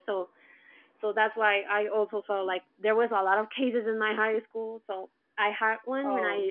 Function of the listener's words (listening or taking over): listening